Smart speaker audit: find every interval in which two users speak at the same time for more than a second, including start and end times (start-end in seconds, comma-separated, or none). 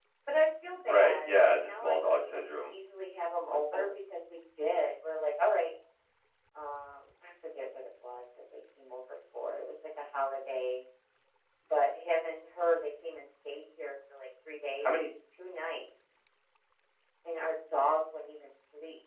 0.8-2.7